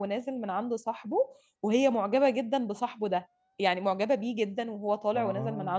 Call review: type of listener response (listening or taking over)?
listening